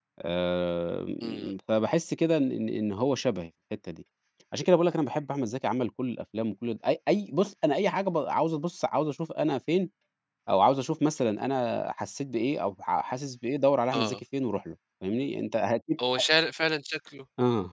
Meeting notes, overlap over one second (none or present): none